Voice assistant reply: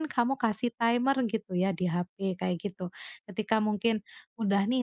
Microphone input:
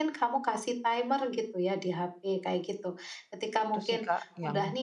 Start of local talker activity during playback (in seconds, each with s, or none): 3.7 s